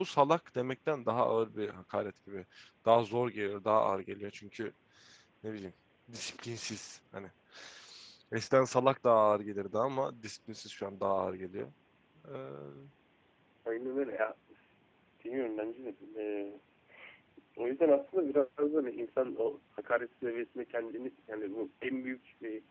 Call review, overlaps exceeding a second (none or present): none